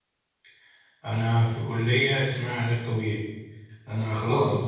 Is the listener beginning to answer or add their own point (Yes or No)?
No